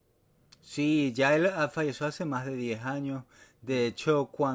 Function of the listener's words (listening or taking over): listening